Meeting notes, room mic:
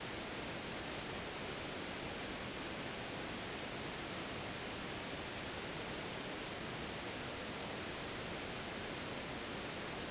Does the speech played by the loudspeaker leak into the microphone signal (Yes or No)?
No